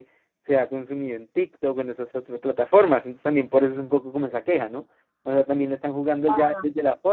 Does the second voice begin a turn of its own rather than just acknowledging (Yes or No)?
No